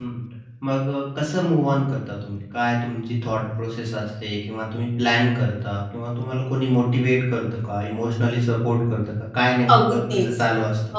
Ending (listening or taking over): taking over